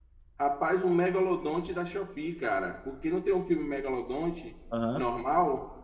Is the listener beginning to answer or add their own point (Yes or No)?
No